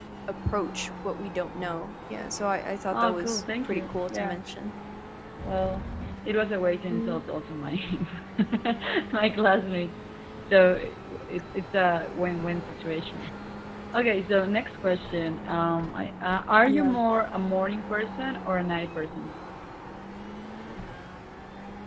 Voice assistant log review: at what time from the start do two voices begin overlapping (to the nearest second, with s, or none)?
3 s